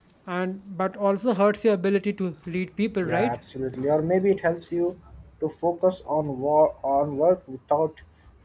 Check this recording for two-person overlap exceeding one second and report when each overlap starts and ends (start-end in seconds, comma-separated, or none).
none